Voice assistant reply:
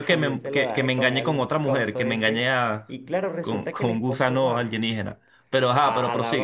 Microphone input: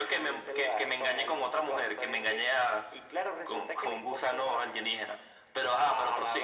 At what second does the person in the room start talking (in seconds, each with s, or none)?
none